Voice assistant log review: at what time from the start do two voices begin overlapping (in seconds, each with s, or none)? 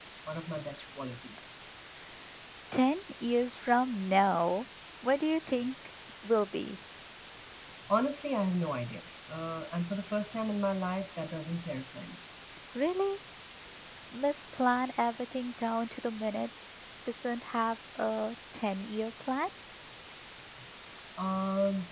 none